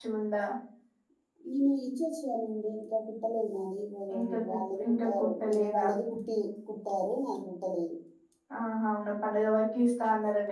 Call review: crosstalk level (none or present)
present